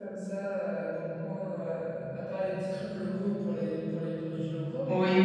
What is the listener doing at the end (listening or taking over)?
taking over